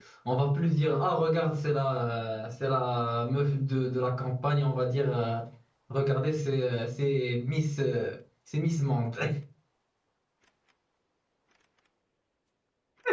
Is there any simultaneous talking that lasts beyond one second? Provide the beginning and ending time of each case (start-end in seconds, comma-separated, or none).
none